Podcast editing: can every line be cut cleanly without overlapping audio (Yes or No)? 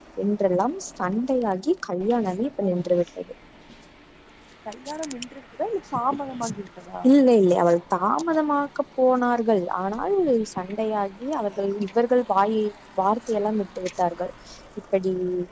Yes